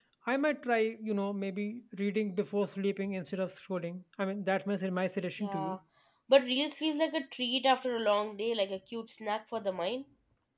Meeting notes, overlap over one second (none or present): none